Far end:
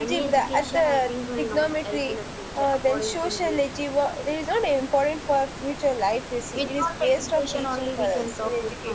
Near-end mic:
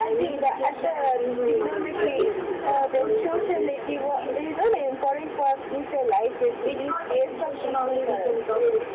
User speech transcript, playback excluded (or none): people who are rich also they are applying for scholarships i can see